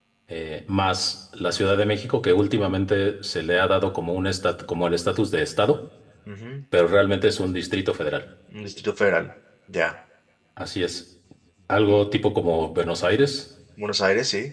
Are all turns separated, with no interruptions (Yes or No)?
Yes